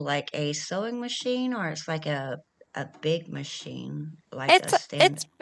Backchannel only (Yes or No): No